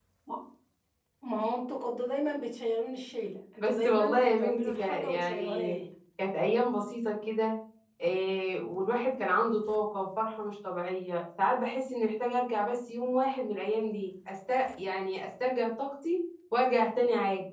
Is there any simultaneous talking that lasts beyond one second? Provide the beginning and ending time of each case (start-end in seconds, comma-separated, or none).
3.6-5.8